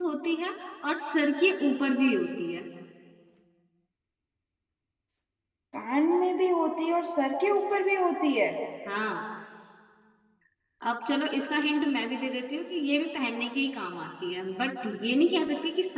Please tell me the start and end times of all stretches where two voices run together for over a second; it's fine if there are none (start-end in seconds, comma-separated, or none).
none